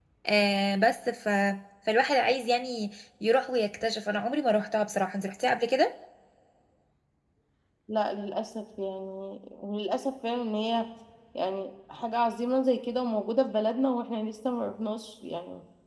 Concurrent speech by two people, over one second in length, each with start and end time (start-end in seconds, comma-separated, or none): none